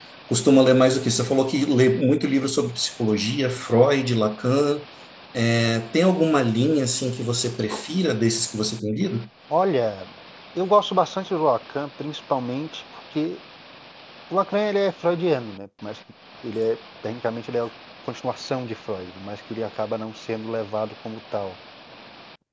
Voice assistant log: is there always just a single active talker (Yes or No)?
Yes